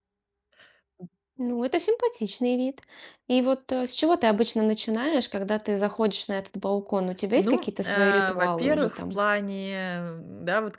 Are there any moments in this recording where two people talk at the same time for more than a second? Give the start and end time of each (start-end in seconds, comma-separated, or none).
7.4-9.2